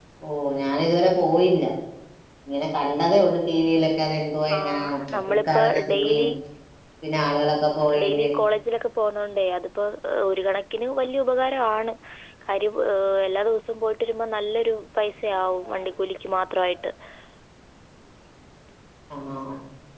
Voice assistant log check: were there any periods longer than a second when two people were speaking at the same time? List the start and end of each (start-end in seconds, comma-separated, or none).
4.5-6.3